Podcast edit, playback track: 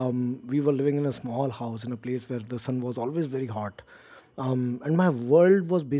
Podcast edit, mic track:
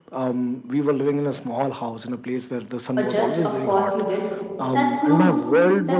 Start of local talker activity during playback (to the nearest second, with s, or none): 3 s